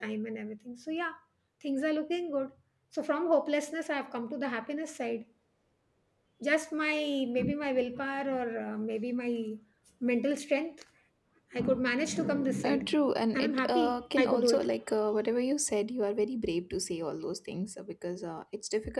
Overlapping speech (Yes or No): Yes